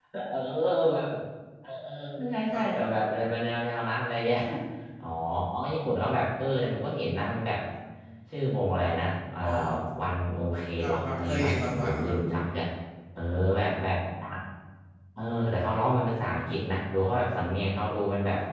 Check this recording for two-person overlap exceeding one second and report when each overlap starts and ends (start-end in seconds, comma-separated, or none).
10.8-12.2